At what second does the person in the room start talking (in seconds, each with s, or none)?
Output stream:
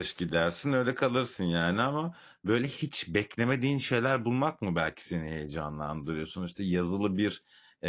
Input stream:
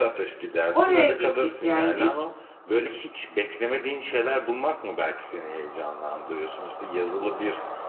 0.7 s